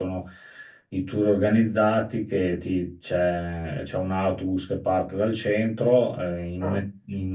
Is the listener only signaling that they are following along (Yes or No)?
Yes